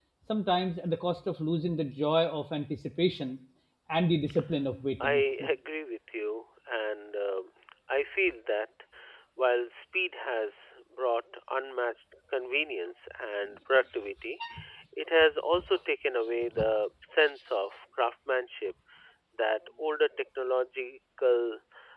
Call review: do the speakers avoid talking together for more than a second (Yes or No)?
Yes